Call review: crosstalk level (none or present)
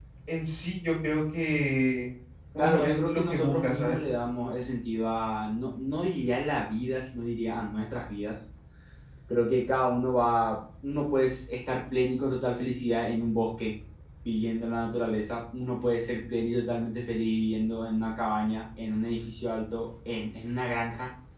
present